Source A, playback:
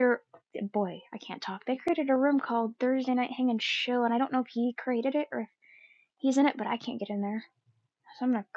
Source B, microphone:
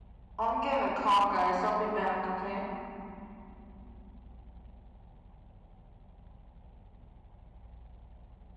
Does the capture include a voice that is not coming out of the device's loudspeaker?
Yes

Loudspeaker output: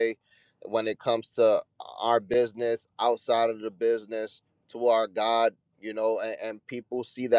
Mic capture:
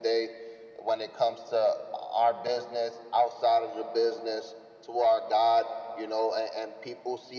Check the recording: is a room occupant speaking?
No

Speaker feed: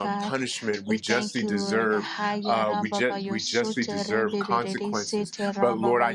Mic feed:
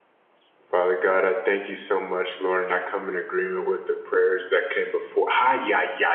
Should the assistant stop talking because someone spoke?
Yes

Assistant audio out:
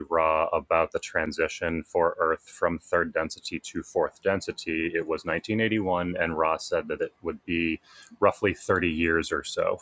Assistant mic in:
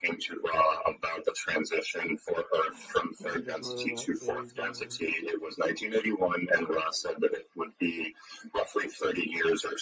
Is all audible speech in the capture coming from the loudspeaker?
No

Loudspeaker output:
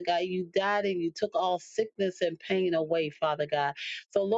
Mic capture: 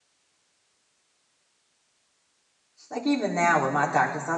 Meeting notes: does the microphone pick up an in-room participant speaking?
Yes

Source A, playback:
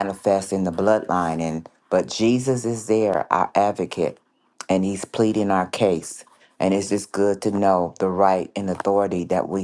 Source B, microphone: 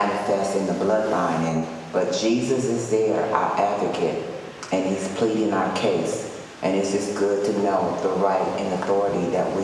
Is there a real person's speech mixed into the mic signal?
No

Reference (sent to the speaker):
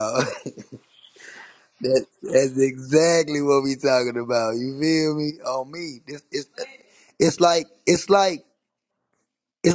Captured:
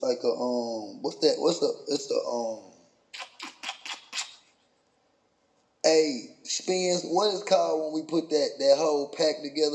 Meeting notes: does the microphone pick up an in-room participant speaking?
Yes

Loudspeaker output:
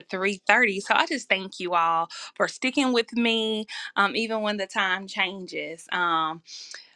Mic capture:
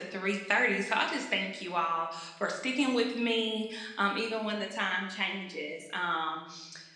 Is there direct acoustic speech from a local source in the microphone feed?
No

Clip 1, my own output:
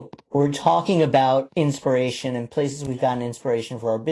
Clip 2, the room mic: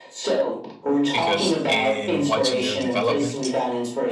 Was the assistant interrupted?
Yes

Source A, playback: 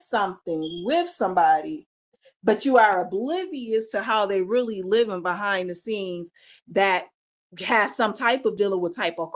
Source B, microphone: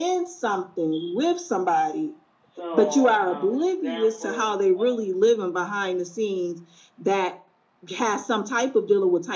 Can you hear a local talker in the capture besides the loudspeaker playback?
Yes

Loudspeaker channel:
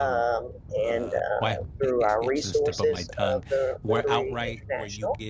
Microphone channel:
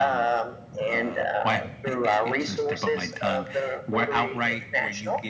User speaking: No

